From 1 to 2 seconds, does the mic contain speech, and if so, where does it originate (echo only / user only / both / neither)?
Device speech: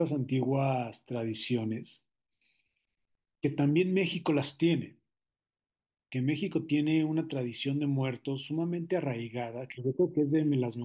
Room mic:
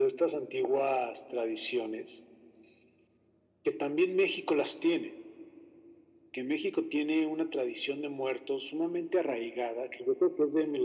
echo only